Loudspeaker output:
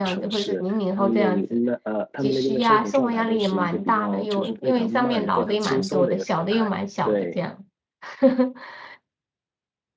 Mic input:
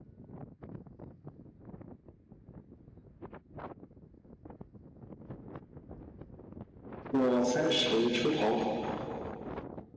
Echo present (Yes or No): No